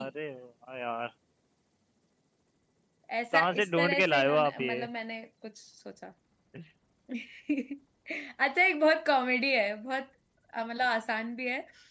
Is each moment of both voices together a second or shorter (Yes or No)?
No